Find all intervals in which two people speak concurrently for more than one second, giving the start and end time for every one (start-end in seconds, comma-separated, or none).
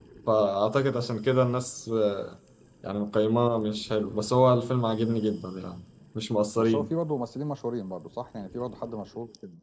none